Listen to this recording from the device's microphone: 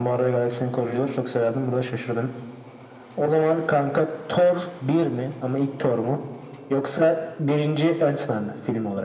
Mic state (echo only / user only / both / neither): echo only